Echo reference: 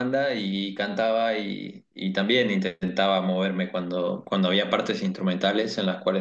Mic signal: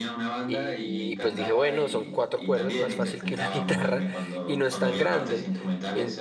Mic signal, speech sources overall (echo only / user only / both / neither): both